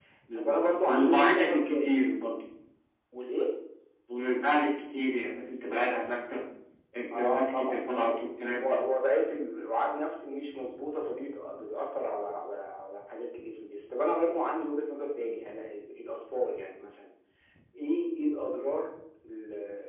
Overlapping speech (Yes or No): Yes